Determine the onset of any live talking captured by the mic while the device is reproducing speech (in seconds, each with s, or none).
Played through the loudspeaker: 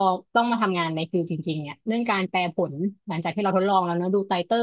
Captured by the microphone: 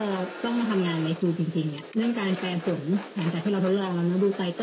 none